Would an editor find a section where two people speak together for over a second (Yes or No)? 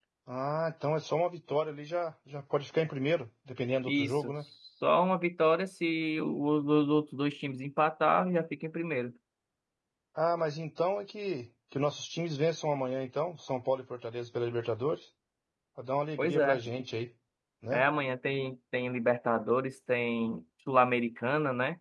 No